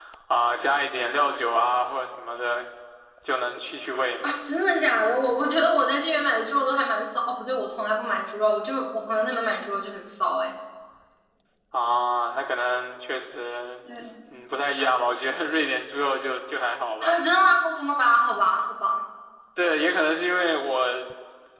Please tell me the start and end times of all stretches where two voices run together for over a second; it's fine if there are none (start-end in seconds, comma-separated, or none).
none